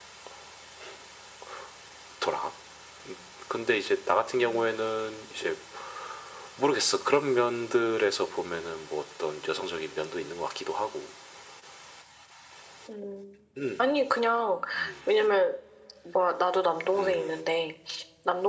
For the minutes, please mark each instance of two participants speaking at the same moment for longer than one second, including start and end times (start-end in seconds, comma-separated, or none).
none